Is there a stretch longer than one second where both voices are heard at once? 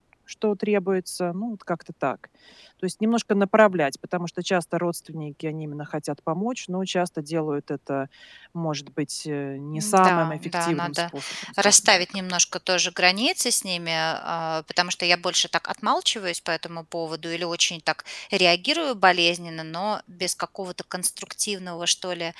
Yes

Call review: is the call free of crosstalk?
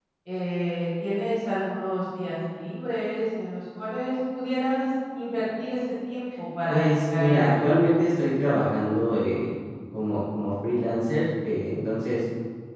No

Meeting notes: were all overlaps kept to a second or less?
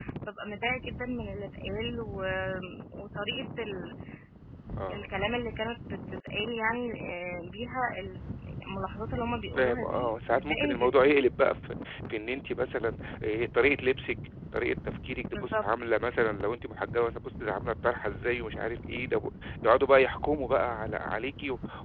No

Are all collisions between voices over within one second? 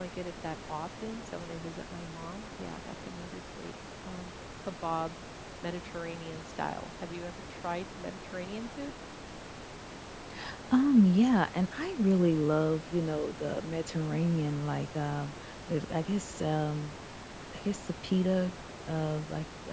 Yes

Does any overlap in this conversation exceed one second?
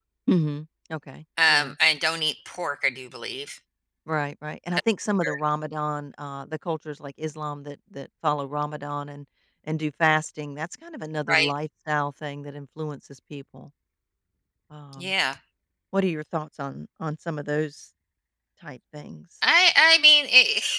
No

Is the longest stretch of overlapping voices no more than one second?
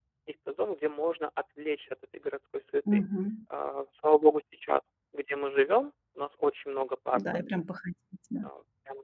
Yes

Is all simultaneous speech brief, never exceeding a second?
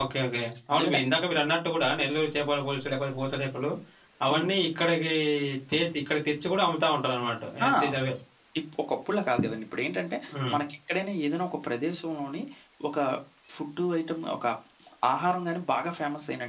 Yes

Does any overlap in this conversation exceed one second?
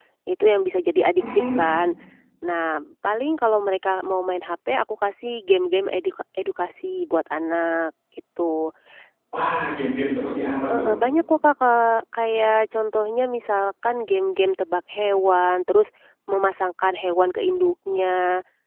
No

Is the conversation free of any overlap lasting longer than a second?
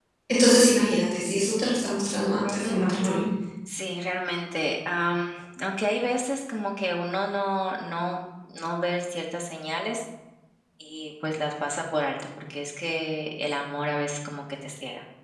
Yes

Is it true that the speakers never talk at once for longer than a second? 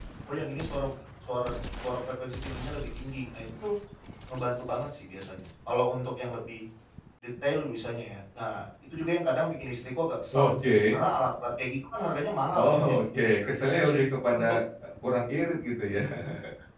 Yes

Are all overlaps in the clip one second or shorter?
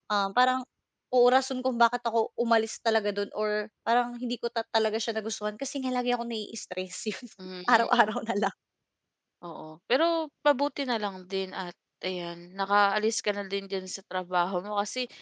Yes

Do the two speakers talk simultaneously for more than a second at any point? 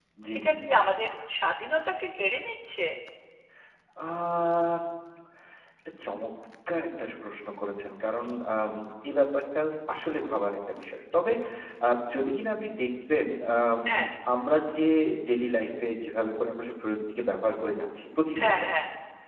No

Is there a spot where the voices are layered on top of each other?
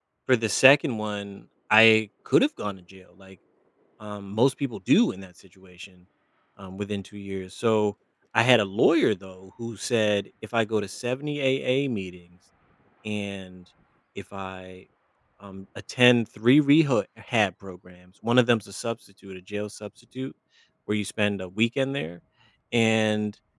No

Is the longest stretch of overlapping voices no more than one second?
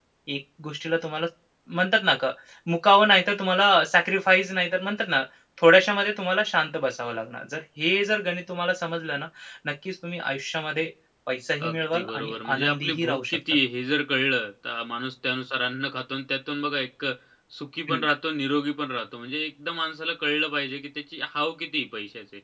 No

